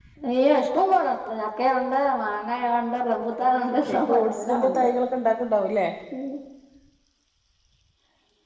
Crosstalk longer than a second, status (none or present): present